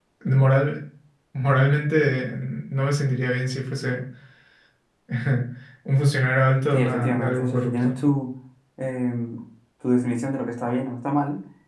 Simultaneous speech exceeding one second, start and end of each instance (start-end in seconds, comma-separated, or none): 6.7-7.9